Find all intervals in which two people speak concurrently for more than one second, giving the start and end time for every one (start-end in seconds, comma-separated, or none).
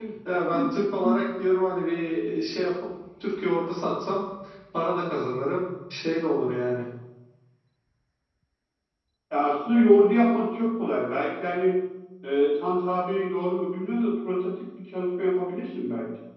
none